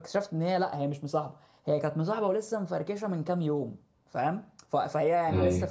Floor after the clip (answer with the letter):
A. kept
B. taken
A